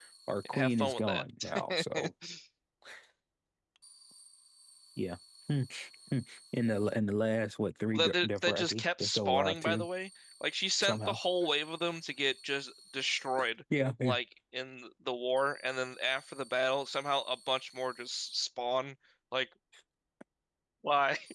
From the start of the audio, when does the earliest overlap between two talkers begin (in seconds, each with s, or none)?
0.5 s